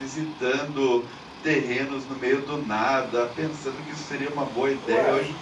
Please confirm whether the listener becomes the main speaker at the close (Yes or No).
No